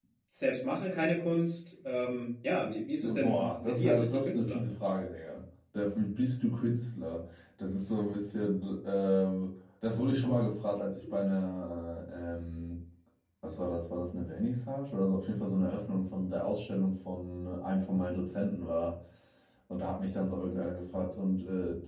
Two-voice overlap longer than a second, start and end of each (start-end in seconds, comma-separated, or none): 3.0-4.6